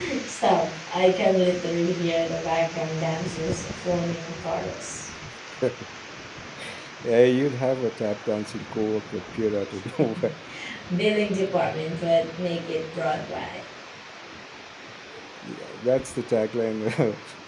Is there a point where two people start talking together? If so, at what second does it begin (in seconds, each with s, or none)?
none